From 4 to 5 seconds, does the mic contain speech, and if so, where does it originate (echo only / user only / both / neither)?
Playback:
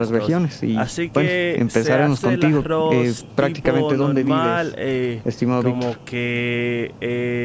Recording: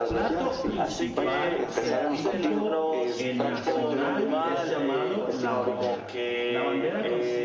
both